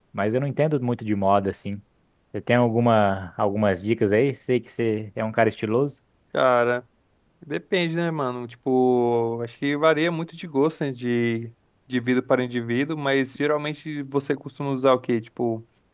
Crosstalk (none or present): none